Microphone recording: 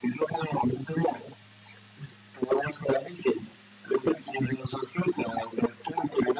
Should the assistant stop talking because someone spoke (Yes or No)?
No